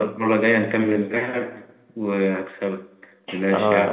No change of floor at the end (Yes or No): No